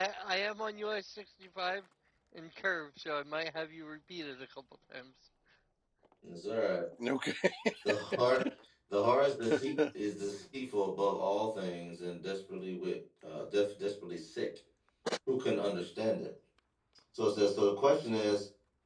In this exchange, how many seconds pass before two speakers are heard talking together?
none

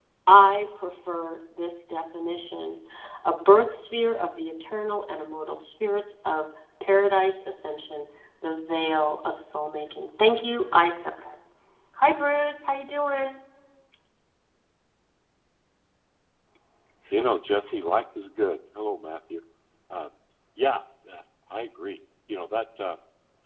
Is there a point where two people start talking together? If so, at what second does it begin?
none

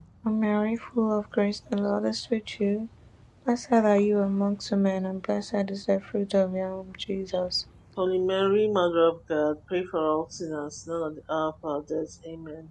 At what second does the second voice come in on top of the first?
none

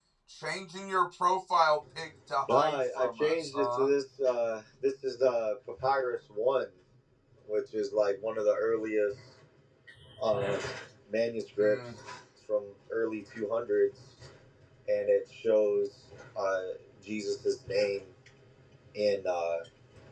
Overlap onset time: 2.5 s

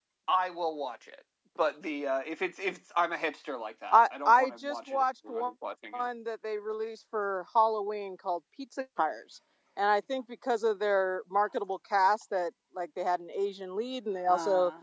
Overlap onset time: 3.9 s

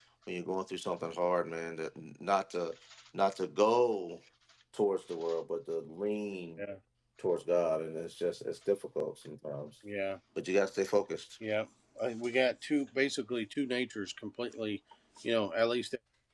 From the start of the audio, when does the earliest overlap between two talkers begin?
none

